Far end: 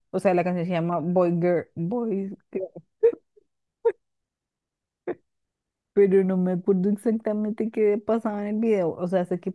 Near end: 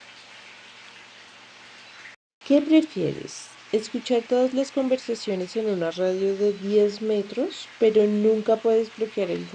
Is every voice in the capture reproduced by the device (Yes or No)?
No